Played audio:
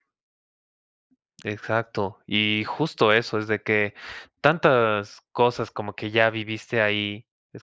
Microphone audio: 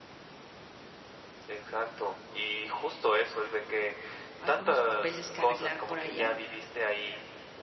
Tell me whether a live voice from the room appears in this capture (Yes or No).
Yes